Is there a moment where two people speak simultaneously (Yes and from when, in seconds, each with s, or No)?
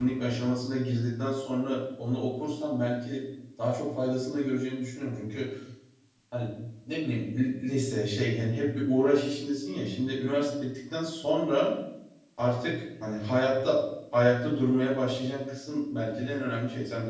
No